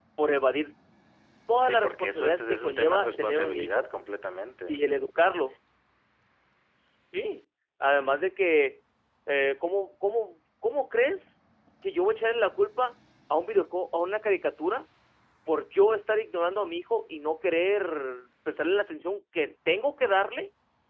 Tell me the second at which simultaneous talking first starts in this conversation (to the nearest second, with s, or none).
2 s